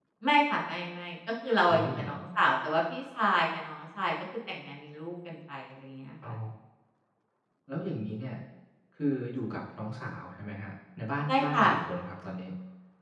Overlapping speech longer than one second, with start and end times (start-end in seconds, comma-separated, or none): none